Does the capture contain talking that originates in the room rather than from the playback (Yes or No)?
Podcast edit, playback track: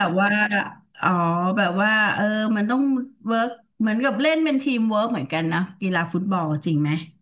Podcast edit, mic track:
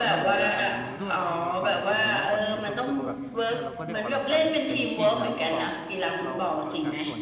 Yes